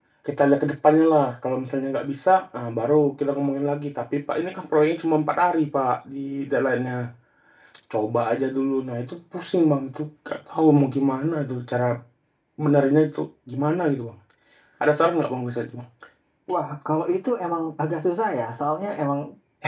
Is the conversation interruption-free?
Yes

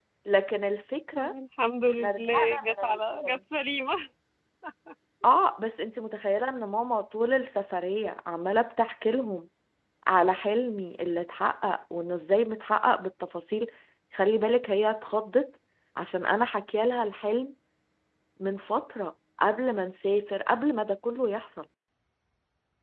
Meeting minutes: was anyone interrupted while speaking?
Yes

